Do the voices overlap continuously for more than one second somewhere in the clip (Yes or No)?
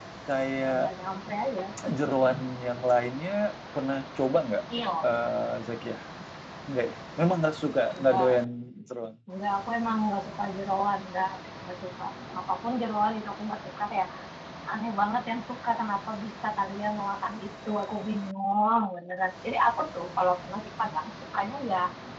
No